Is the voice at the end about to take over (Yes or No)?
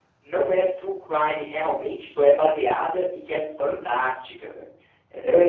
Yes